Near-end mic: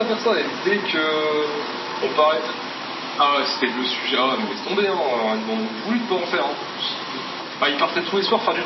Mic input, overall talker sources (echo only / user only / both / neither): echo only